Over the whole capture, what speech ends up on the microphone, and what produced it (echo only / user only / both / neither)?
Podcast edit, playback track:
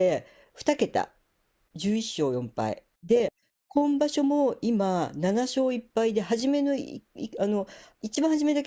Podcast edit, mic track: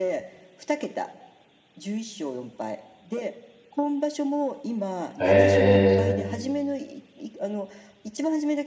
both